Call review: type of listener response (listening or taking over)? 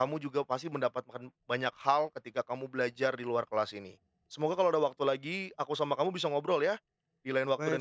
taking over